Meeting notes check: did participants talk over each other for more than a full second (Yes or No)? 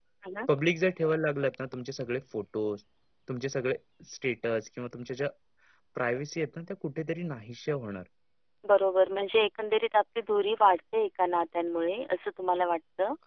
No